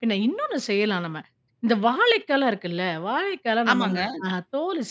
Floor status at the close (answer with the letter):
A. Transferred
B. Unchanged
B